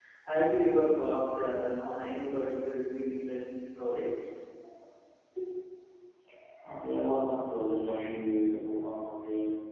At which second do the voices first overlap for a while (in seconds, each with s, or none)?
none